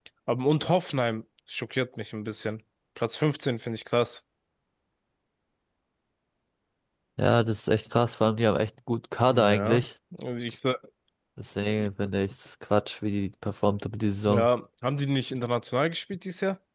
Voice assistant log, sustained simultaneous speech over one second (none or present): none